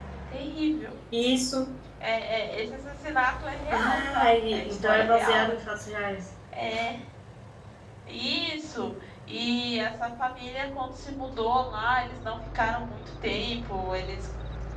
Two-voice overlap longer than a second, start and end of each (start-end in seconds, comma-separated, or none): 3.7-5.4